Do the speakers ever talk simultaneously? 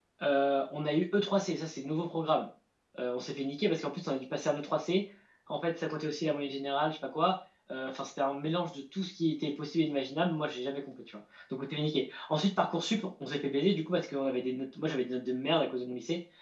No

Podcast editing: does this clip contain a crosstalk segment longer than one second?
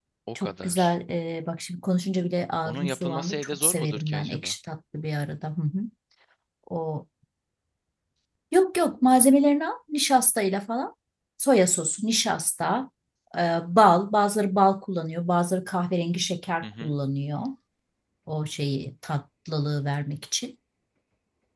Yes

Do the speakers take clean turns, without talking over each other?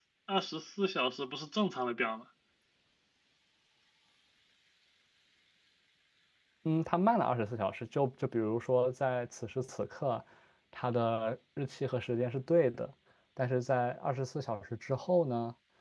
Yes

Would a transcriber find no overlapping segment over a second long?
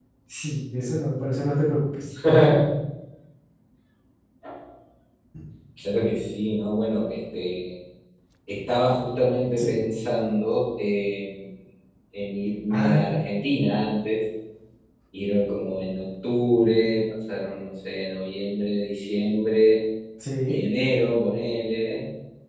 Yes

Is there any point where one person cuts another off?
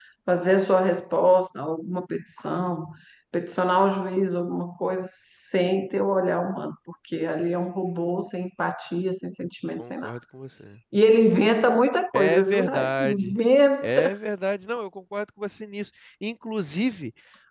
Yes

